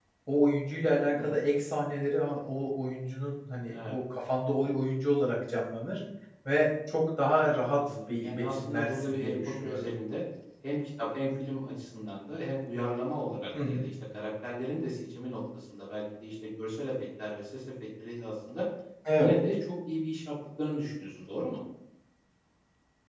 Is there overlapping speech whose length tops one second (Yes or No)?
Yes